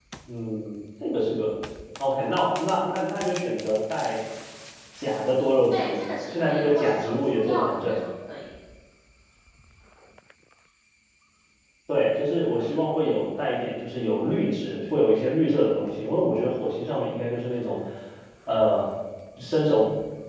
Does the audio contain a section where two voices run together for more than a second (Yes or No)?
Yes